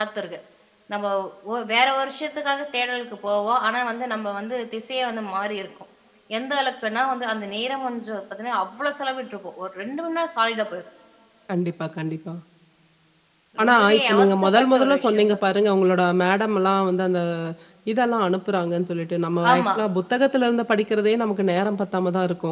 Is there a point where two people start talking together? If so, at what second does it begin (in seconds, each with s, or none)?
13.6 s